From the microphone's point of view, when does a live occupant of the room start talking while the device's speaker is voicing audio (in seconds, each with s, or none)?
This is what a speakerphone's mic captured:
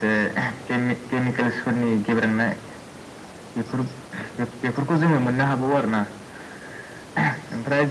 none